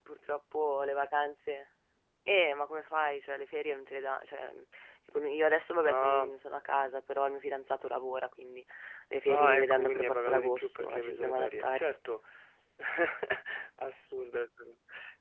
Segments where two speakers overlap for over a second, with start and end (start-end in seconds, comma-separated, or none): 9.3-11.9